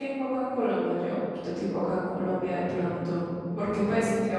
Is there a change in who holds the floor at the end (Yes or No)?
No